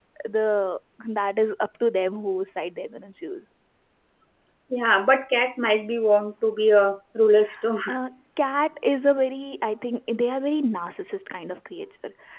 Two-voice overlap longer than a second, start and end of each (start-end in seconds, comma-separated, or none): none